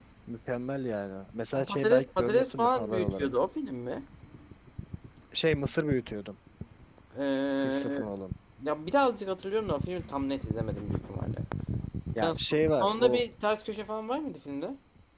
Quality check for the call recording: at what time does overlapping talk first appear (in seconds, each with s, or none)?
1.6 s